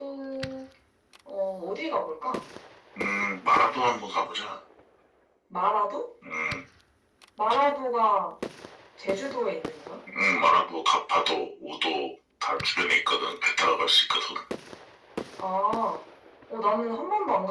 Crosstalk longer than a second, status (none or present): none